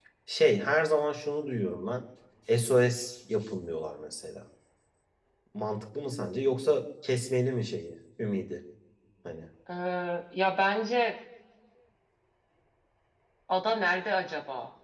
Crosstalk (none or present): none